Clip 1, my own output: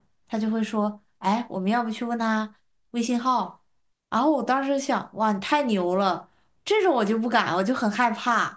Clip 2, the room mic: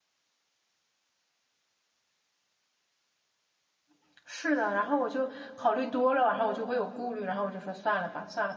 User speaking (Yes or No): Yes